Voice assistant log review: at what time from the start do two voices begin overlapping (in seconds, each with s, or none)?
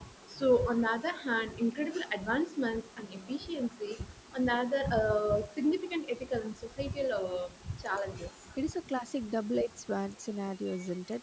none